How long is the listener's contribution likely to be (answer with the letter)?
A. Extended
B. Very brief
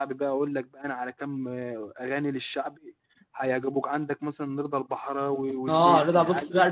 A